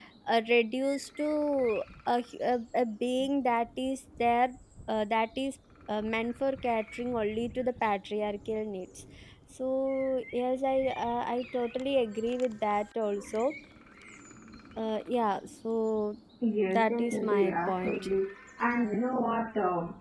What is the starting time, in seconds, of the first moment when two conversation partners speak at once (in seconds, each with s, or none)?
16.7 s